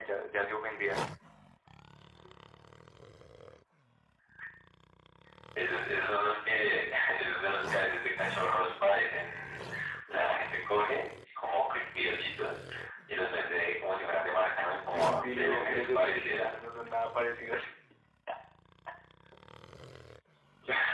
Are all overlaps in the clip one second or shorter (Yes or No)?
No